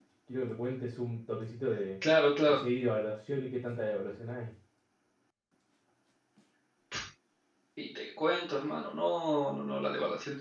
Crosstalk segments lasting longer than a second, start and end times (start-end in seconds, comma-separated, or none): none